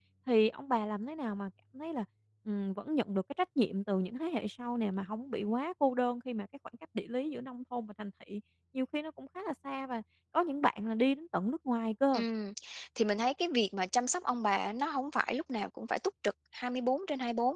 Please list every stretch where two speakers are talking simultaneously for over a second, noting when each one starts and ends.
none

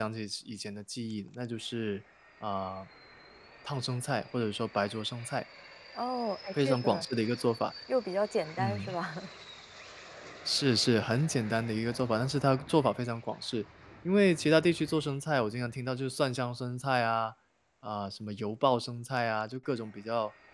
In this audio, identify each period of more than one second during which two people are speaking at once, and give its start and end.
none

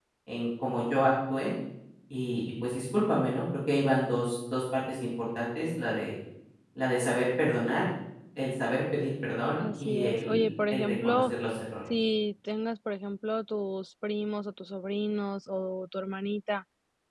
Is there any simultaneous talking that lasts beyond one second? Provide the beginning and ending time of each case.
9.6-11.3

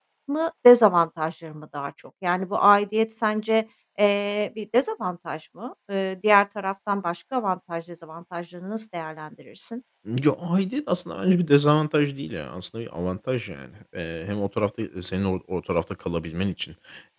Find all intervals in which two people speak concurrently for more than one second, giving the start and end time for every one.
none

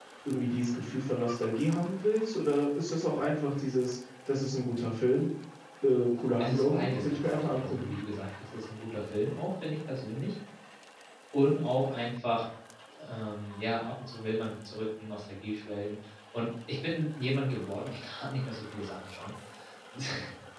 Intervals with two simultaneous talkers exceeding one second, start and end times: 6.4-7.9

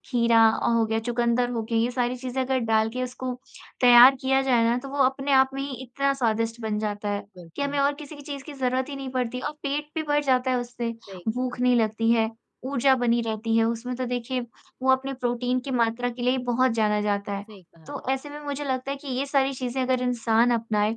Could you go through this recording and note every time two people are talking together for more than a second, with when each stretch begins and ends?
none

